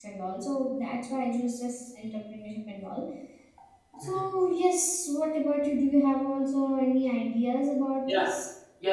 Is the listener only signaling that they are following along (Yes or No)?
No